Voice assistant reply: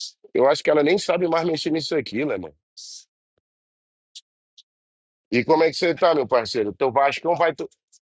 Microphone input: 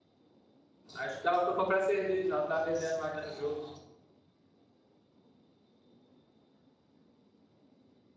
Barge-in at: 1.0 s

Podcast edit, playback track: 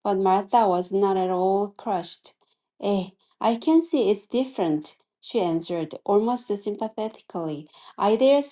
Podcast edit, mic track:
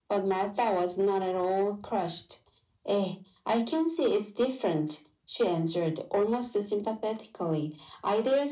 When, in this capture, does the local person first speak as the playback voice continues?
none

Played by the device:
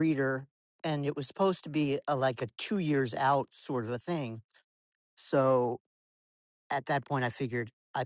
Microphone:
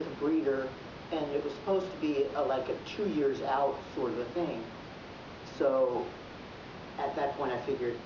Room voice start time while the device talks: none

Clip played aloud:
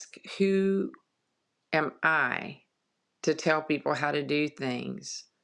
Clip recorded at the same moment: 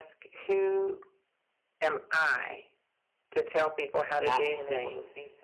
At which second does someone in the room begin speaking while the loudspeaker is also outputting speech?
4.1 s

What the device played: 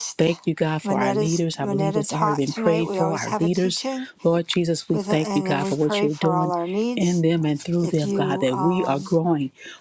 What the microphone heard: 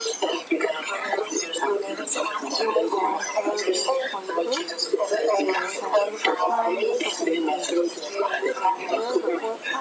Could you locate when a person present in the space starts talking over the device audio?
2.7 s

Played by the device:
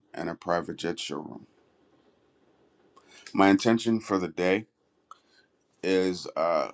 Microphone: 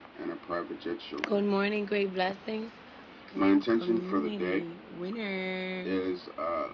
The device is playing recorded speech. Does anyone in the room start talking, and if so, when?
1.3 s

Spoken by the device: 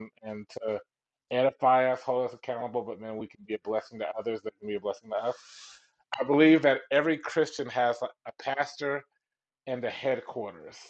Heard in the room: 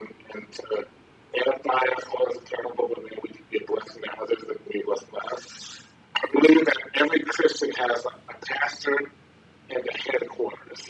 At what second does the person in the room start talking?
none

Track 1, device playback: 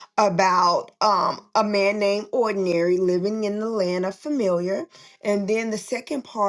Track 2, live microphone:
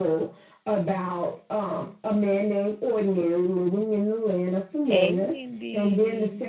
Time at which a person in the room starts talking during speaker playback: 4.9 s

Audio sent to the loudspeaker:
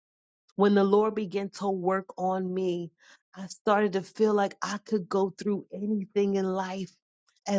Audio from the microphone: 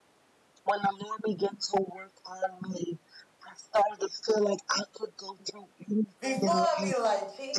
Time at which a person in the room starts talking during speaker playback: 6.2 s

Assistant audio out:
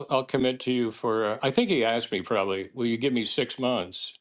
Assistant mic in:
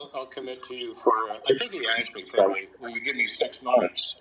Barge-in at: none

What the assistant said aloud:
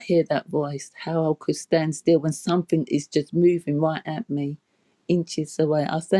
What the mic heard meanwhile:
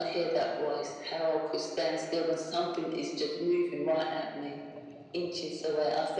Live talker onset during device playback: none

